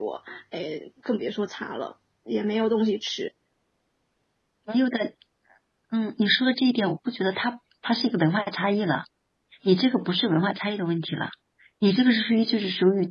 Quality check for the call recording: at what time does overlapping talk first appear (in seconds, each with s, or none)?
none